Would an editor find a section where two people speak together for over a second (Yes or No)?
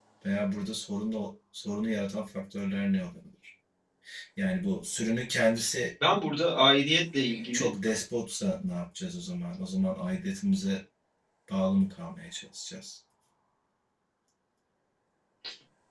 No